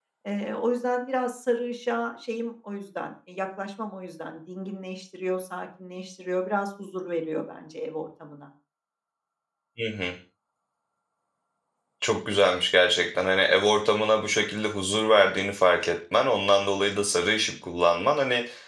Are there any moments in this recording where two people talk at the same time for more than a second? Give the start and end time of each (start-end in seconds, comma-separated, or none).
none